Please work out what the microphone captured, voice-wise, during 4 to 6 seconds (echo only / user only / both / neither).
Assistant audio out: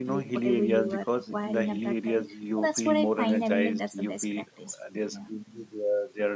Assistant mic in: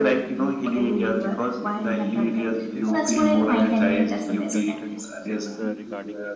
both